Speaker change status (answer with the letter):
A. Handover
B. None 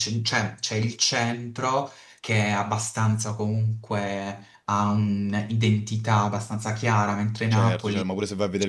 A